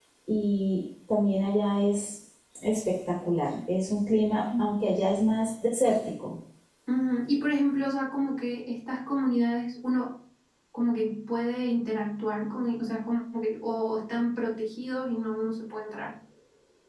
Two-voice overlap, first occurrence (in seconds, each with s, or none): none